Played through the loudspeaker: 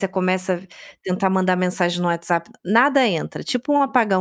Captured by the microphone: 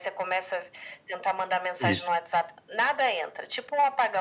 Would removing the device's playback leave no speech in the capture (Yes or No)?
No